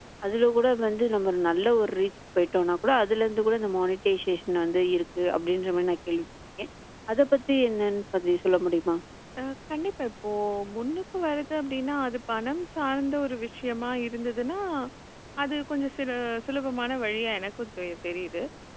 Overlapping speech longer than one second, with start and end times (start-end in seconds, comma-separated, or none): none